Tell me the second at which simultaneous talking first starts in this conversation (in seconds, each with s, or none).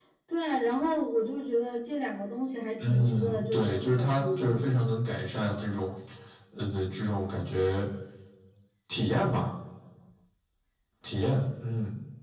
2.8 s